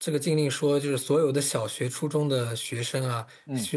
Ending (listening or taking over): listening